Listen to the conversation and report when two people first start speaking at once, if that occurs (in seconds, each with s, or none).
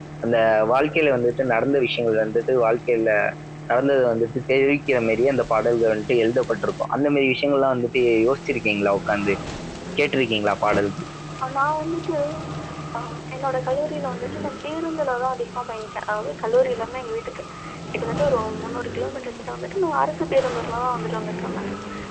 none